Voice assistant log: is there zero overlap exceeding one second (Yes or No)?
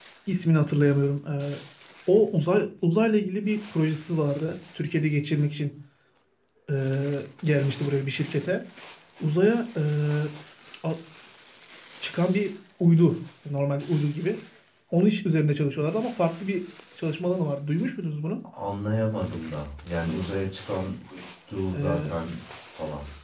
Yes